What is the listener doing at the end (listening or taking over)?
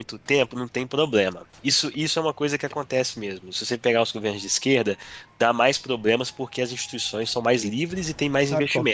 taking over